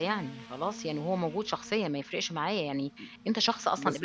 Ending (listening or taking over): taking over